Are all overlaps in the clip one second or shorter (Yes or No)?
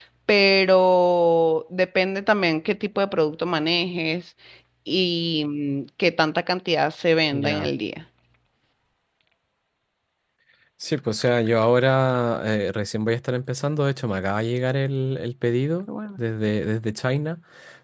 Yes